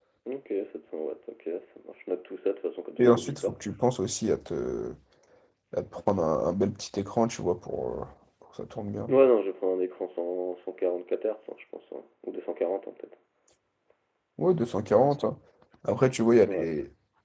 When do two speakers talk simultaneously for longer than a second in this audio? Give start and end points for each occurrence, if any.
none

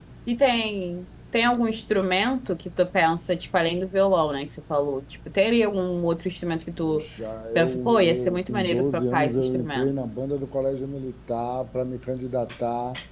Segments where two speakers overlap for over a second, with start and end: 7.5-9.9

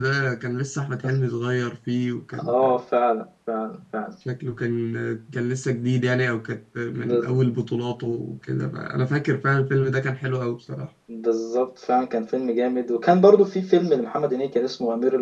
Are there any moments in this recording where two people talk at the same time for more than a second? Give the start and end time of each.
none

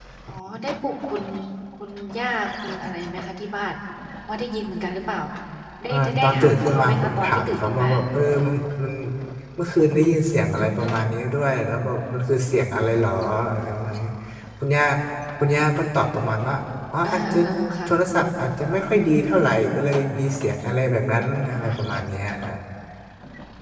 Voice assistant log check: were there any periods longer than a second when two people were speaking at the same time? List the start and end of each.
5.9-7.9

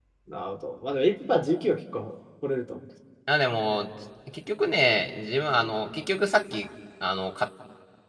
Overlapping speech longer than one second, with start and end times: none

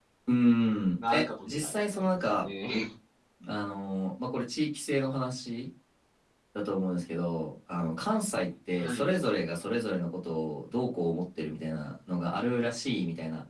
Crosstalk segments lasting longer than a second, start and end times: 1.1-2.5

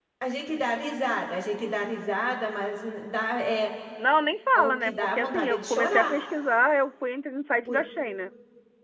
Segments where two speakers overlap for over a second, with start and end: 4.5-6.1

